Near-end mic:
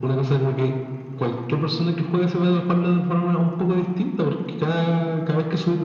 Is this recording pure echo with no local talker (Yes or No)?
Yes